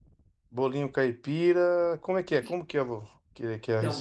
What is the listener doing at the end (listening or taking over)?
taking over